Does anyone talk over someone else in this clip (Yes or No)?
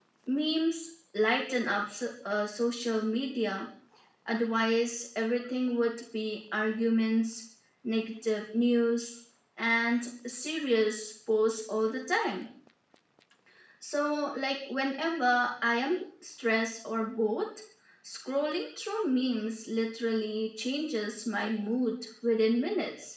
No